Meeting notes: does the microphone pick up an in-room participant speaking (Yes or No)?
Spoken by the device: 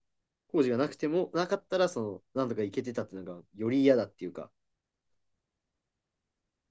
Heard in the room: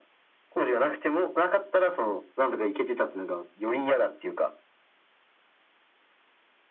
No